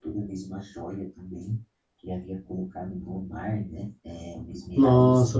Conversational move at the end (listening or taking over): taking over